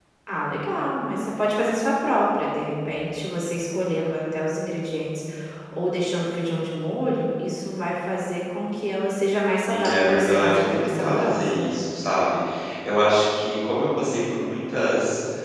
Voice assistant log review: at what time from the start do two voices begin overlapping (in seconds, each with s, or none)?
9.7 s